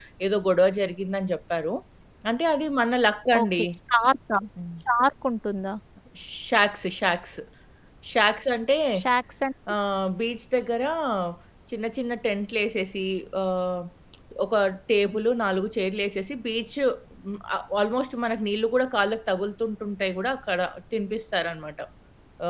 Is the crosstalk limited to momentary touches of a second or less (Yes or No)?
Yes